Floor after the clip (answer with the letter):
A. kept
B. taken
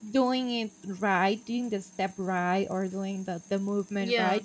A